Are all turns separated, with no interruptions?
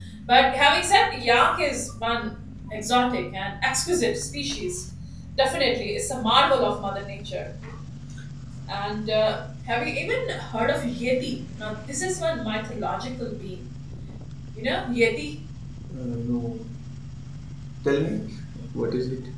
Yes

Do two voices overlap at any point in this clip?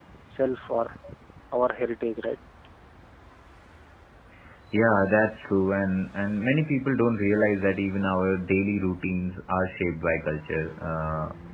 No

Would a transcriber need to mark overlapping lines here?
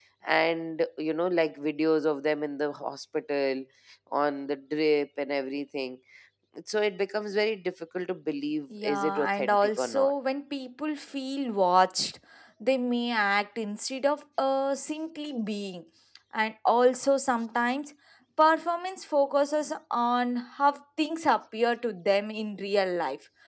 Yes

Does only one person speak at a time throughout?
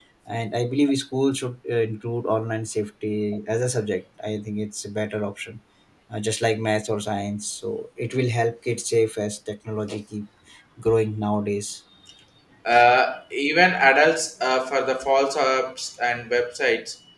Yes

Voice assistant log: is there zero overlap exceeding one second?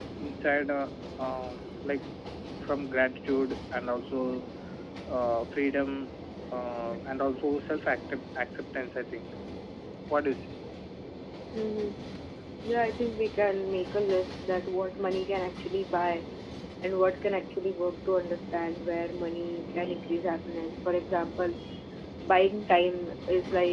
Yes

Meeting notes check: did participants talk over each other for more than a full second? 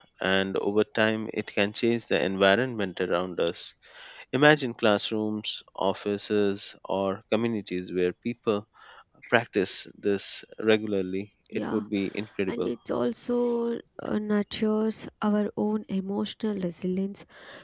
No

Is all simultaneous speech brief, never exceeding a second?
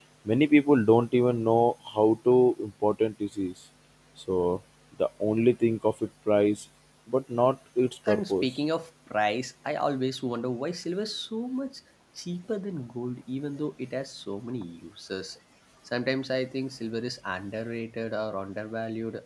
Yes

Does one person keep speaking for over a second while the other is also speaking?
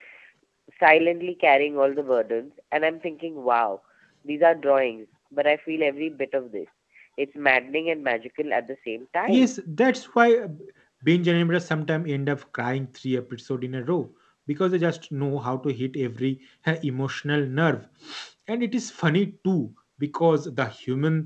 No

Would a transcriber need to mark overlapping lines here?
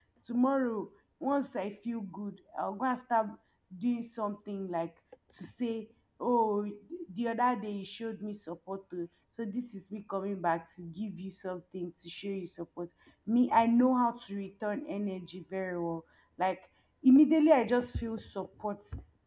No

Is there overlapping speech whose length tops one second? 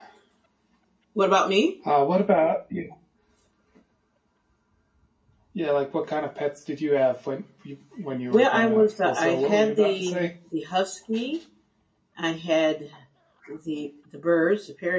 Yes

